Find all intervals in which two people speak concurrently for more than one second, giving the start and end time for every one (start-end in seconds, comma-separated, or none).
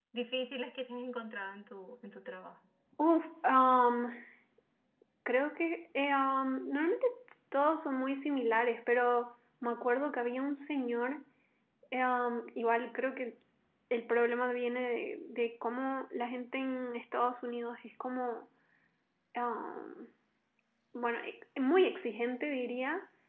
none